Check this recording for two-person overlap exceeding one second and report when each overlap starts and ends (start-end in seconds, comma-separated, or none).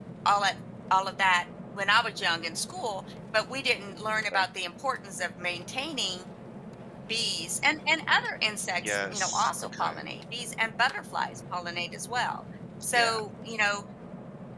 8.8-10.0